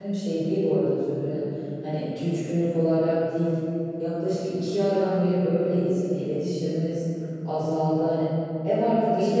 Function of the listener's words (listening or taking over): taking over